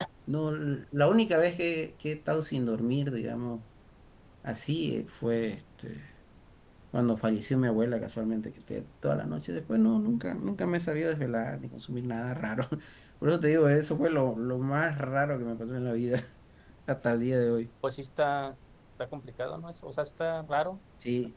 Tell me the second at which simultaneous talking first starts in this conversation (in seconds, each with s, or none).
none